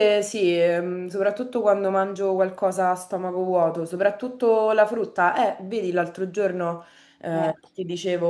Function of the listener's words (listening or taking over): listening